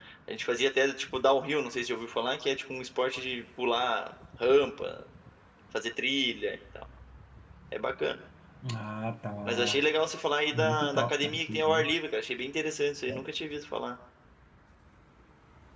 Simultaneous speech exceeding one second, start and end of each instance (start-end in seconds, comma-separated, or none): 10.5-11.9